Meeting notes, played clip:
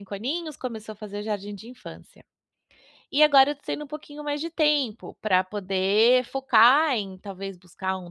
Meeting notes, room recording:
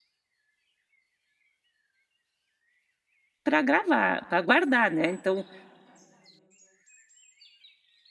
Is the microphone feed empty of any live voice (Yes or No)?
No